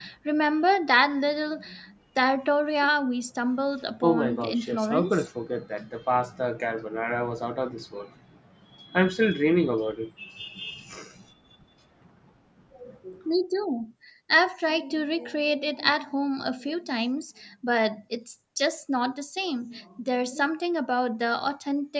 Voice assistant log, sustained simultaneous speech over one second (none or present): present